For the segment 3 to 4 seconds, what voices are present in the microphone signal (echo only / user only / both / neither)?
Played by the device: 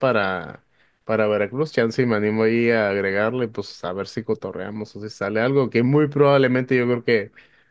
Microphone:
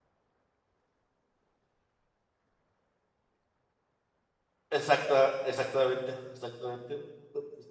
neither